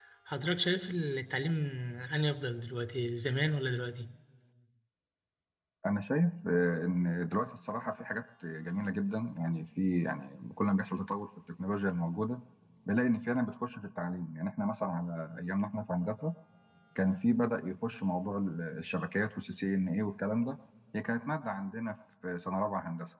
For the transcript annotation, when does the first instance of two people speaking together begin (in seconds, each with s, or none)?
none